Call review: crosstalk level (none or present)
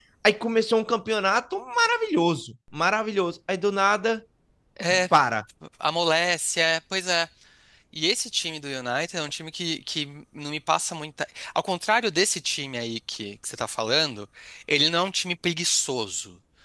none